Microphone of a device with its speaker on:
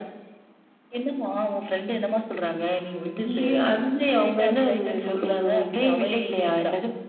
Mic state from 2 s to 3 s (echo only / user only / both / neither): echo only